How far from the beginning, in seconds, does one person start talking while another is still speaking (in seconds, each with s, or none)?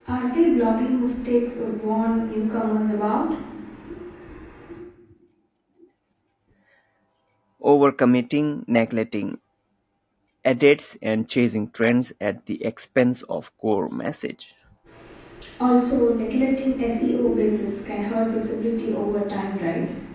none